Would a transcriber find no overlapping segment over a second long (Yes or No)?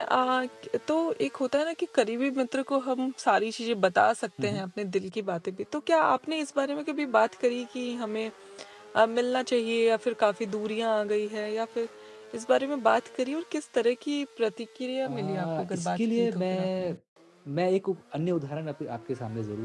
No